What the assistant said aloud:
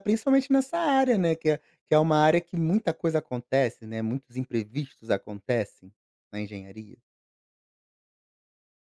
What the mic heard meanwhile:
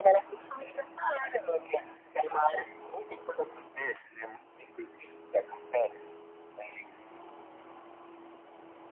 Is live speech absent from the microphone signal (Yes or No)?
Yes